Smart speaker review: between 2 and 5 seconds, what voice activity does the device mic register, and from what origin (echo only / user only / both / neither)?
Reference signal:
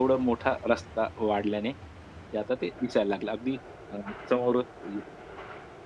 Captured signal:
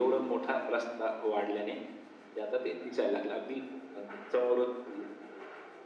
echo only